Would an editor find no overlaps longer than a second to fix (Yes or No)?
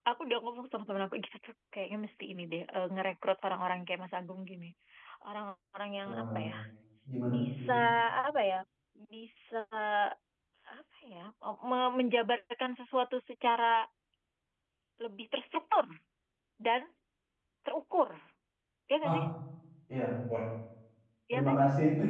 Yes